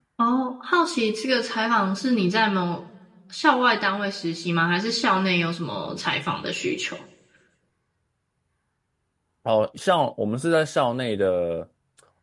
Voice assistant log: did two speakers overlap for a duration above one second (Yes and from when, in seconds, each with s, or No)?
No